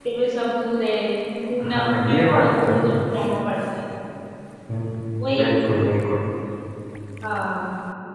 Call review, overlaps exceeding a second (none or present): present